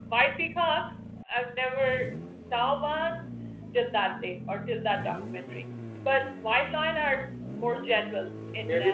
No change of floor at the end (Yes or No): No